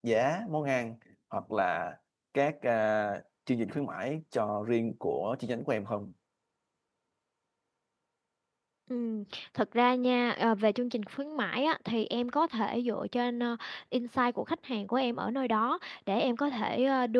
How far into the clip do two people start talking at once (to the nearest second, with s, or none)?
none